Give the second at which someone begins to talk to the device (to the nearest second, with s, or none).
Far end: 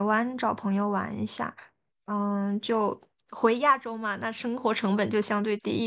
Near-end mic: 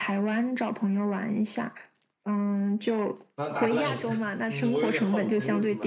3 s